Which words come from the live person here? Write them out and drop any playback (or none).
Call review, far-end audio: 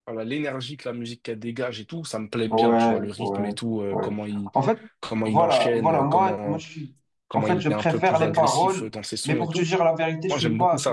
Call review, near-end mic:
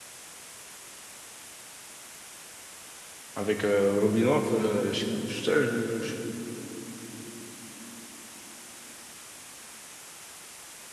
avec euh, Robinov, euh, j'écoute, je, je, je-